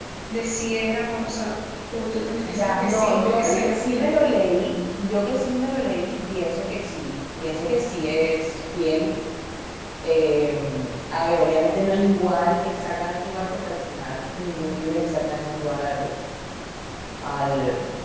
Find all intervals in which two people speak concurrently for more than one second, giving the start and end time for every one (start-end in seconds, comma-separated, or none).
2.4-4.2